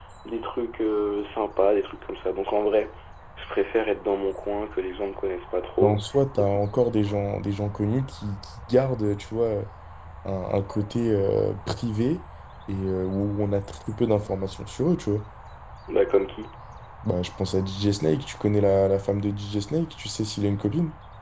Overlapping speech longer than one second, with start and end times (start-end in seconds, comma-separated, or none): none